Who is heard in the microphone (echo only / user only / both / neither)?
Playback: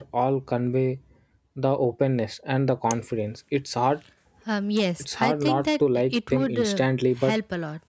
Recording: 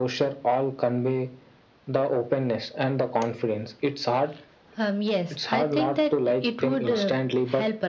both